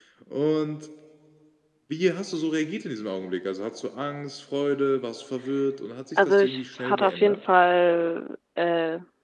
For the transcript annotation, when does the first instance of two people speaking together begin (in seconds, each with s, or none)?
6.2 s